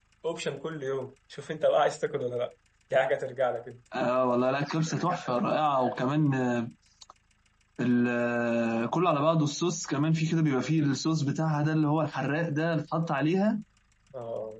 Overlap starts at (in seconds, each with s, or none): none